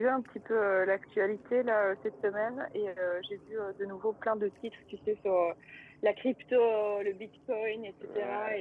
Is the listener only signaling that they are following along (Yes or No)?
Yes